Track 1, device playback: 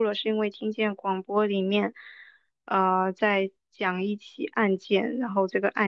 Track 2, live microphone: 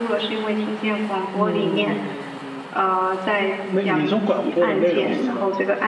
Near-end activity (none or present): present